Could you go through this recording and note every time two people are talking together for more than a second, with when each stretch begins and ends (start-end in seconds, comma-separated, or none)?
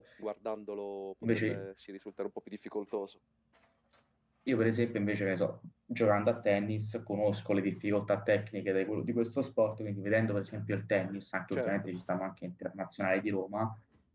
none